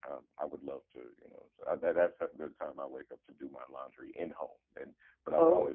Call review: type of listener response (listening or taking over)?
listening